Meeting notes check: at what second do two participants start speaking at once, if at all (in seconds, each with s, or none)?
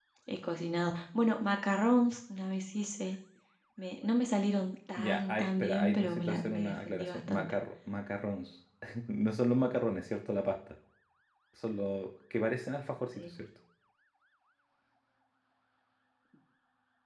5.0 s